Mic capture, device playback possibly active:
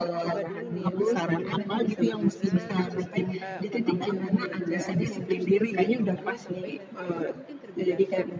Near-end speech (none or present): present